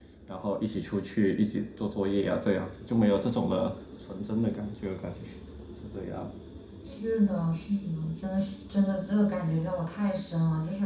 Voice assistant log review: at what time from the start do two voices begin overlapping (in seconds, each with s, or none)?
none